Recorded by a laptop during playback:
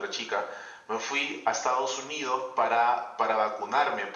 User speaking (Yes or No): No